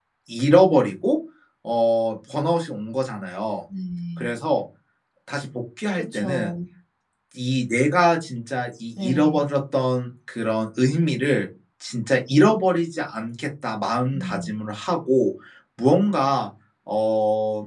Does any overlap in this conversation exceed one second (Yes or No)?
No